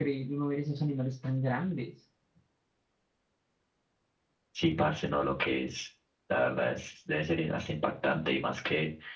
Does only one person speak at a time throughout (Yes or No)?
Yes